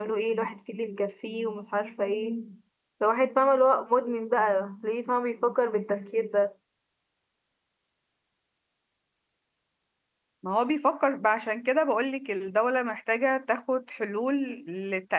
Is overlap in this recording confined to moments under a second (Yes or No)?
Yes